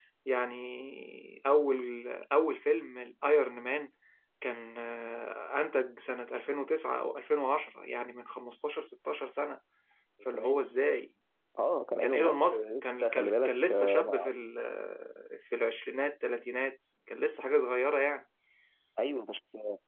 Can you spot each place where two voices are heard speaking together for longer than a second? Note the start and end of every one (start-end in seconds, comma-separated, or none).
12.0-14.3